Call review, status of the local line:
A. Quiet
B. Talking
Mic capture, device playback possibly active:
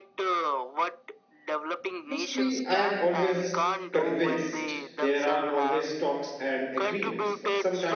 B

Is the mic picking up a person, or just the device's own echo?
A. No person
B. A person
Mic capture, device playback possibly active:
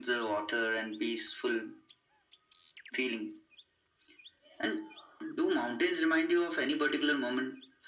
A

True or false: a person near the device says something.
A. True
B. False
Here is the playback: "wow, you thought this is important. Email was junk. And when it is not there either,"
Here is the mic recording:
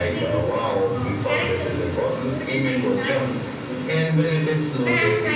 A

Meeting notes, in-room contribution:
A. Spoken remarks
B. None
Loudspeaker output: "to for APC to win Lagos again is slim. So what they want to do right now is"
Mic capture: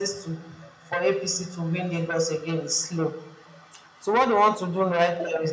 B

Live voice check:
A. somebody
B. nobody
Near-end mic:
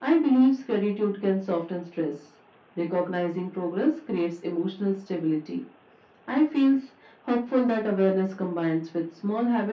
B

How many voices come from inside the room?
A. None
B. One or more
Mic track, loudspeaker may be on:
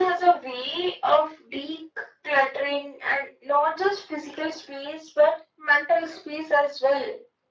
A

